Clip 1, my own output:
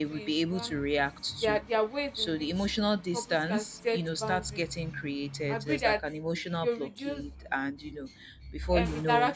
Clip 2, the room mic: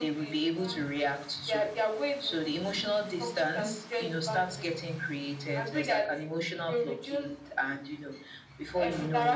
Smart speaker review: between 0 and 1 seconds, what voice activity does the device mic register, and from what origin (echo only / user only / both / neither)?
echo only